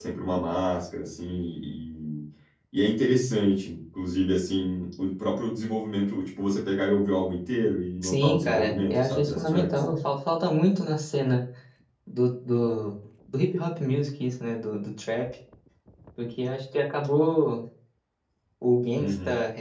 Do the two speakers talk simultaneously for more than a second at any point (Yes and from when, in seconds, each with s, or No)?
Yes, from 8.0 s